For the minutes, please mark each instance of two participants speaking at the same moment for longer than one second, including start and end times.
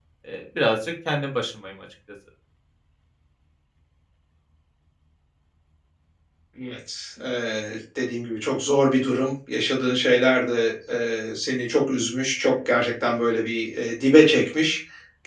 none

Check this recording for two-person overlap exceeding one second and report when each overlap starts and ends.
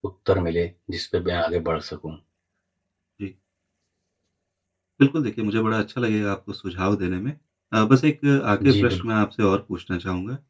none

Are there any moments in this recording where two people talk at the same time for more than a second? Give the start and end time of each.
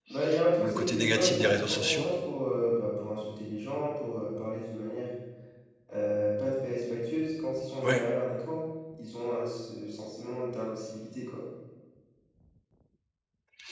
0.6-2.1

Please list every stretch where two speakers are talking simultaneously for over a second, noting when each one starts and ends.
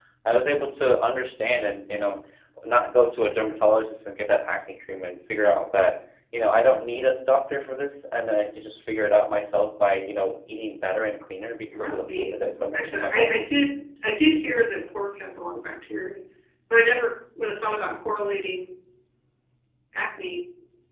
11.7-13.4

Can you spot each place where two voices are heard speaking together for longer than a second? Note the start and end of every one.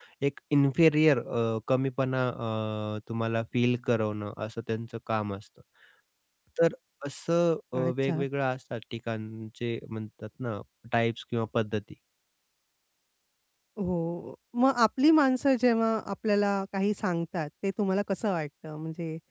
none

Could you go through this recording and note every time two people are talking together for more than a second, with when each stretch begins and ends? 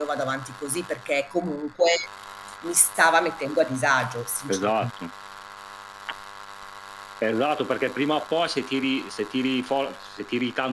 none

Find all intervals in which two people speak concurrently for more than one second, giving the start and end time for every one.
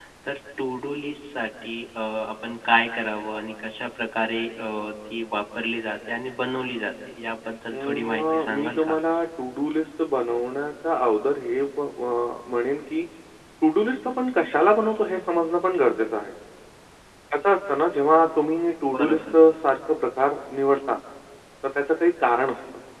7.7-9.0

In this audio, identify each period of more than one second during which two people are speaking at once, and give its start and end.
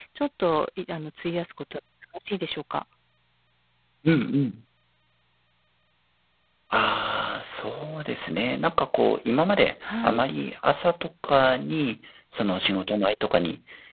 none

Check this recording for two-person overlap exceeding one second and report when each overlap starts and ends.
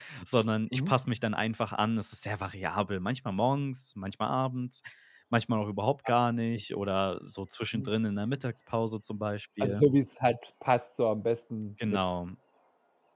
none

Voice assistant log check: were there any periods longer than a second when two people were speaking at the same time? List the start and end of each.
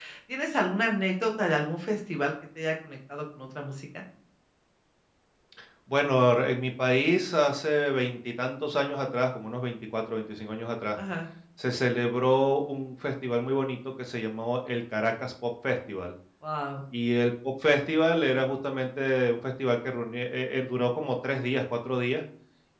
none

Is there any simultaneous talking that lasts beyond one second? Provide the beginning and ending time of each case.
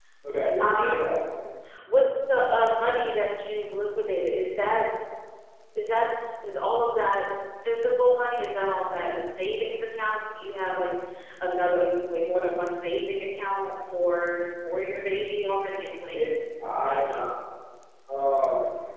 none

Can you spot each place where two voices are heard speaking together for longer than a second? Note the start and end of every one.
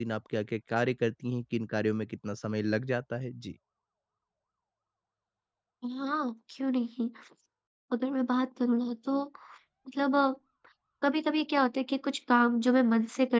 none

